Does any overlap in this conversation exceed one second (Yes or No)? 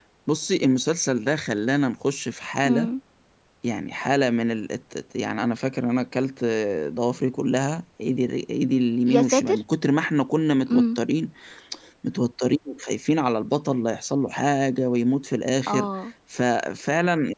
No